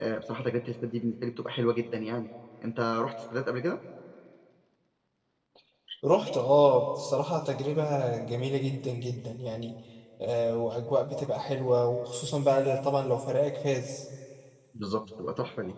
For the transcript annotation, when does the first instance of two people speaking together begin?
none

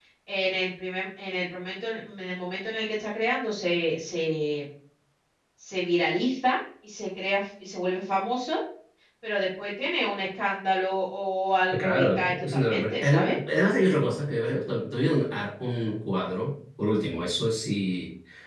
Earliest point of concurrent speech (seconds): 11.7 s

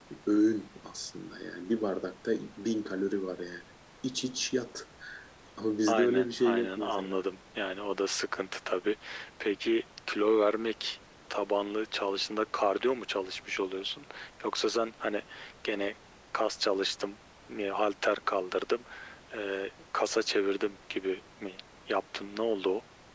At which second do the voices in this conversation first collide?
5.9 s

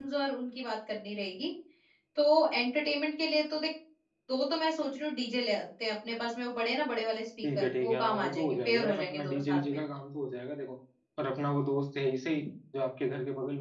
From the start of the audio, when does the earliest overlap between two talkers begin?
7.4 s

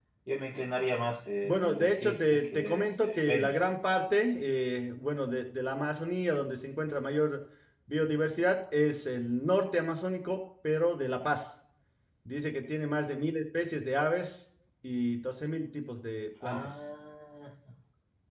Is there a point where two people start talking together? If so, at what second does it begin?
1.4 s

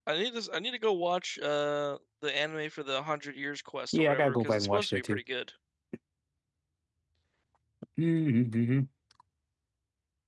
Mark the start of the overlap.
3.9 s

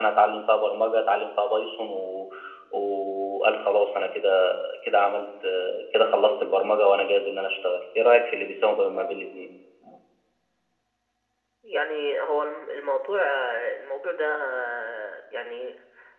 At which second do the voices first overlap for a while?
none

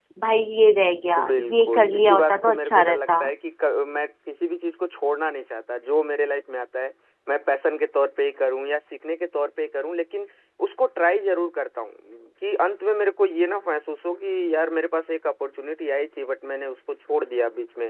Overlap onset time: 1.3 s

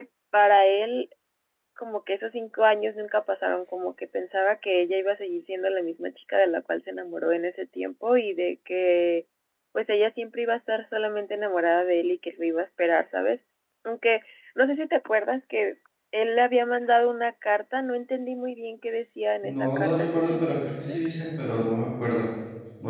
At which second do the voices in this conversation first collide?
19.4 s

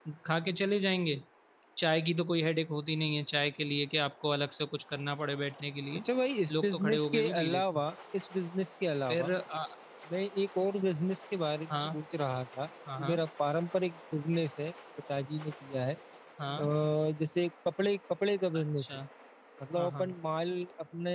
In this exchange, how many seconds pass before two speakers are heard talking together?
6.5 s

